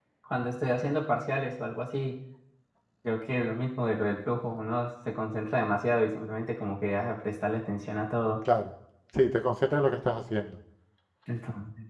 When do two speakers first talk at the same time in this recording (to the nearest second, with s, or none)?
none